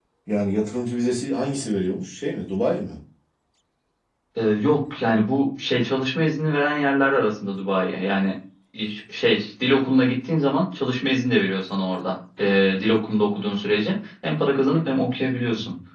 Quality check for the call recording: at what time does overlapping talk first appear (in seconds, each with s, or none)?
none